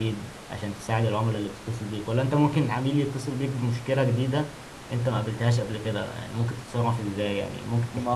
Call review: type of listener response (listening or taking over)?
taking over